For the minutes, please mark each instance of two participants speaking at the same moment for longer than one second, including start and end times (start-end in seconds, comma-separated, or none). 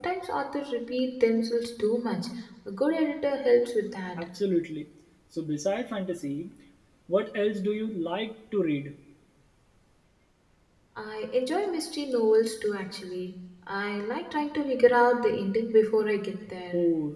none